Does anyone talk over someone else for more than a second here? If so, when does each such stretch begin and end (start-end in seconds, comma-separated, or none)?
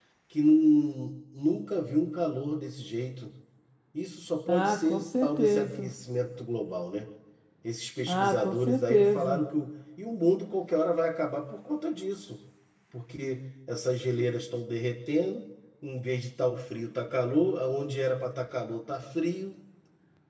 4.5-5.9, 8.1-9.4